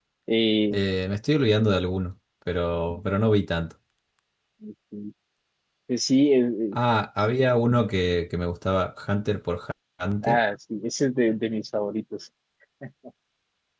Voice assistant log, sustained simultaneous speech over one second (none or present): none